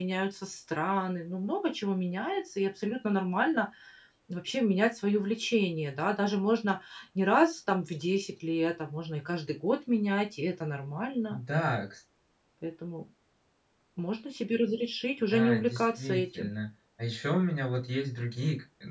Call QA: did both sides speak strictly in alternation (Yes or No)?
No